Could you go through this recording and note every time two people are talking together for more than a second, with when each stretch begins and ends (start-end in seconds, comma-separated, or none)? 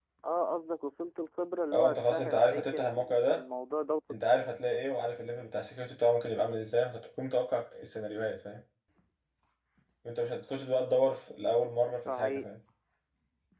1.7-3.4